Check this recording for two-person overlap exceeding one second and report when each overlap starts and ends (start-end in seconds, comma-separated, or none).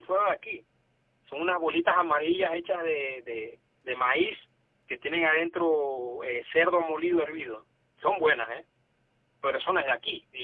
none